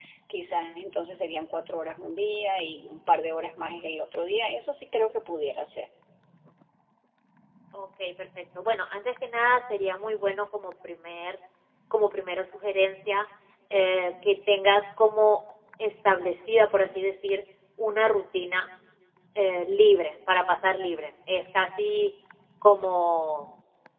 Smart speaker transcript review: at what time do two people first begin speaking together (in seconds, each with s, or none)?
none